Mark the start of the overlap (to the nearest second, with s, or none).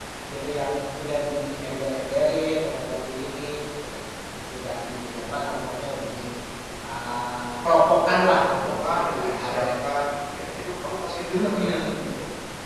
8 s